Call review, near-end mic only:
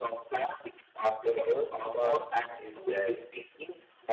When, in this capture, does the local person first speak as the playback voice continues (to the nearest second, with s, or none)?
1 s